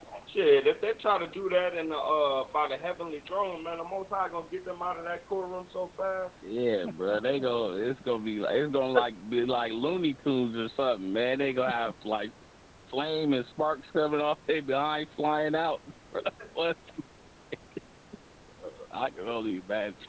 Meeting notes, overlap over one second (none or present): none